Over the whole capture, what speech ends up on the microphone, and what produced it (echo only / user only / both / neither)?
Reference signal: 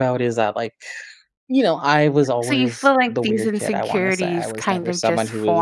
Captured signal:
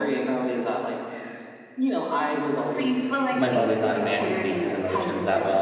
both